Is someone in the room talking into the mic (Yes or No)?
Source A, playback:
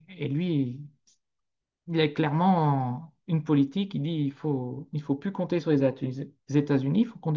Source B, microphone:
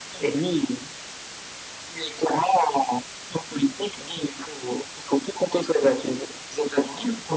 No